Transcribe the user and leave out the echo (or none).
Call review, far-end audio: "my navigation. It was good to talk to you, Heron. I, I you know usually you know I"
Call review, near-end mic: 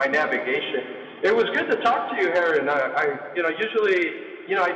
none